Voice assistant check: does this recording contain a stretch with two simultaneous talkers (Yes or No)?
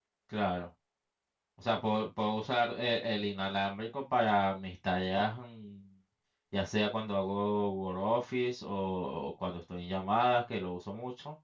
No